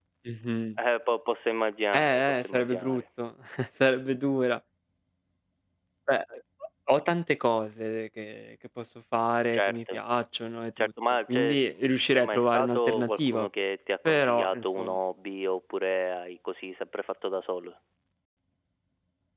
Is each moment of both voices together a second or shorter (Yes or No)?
No